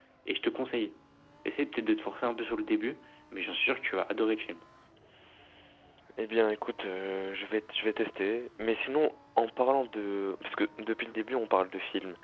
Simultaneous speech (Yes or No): No